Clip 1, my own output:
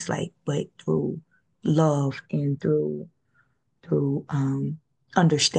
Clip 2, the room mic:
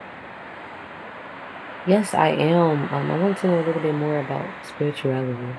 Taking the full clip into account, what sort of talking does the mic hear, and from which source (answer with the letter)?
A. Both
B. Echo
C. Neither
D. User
D